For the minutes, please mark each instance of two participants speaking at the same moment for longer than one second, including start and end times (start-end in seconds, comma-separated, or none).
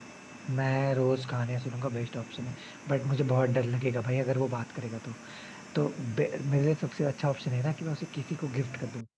none